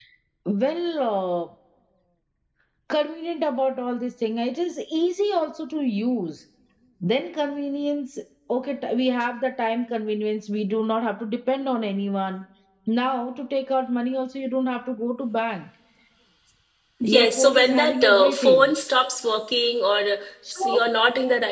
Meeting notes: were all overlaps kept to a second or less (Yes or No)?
No